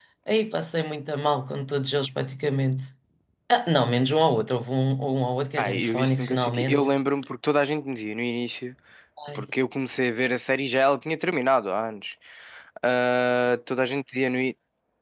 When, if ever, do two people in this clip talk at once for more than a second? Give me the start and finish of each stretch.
5.6-6.9

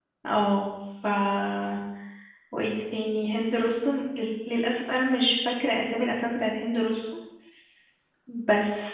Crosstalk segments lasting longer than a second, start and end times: none

